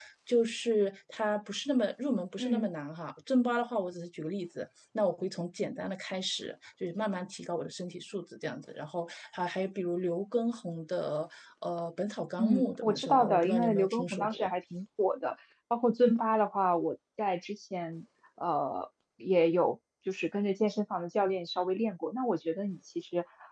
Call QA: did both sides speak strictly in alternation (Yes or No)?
No